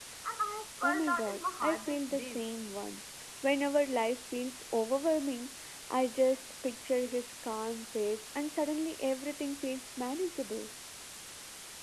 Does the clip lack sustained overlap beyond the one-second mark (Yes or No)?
No